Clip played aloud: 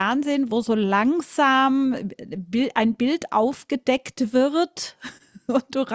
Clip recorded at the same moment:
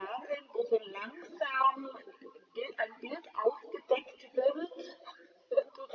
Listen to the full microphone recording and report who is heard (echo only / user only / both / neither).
echo only